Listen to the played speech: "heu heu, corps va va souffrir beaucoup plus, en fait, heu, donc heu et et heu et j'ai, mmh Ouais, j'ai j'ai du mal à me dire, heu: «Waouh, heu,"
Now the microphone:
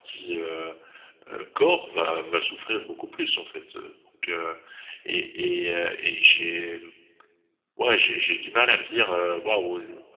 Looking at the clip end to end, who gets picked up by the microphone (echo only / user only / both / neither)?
echo only